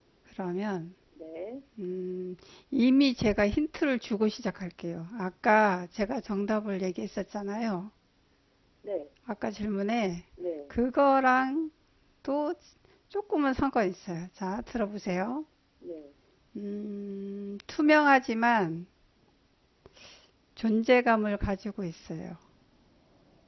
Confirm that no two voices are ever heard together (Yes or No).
Yes